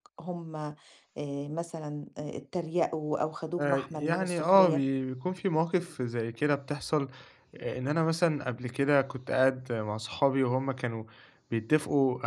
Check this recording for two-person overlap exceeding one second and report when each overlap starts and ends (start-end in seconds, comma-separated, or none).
3.6-4.8